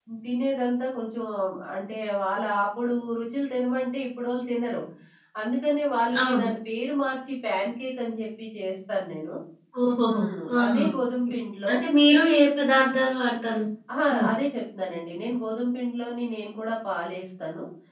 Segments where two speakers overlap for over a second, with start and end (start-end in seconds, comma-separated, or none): none